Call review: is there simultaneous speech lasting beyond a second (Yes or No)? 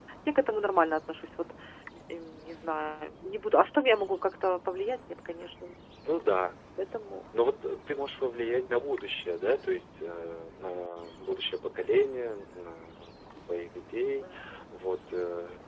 No